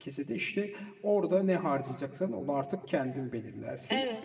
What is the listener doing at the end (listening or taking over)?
listening